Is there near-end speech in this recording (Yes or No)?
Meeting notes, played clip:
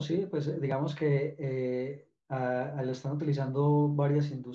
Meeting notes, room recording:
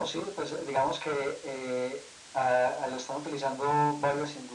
No